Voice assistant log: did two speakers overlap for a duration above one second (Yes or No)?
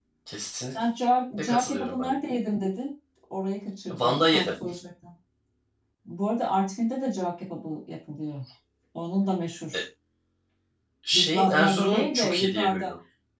Yes